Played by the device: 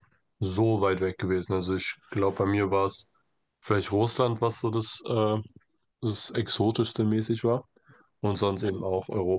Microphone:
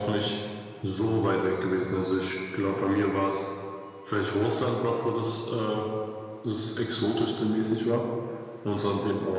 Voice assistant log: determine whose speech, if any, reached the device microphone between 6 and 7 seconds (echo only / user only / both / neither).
echo only